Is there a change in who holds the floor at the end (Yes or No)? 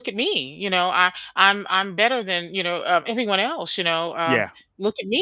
No